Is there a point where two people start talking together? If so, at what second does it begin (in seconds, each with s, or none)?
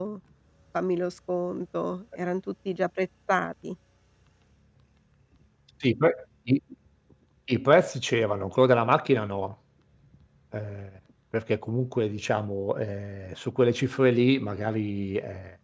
none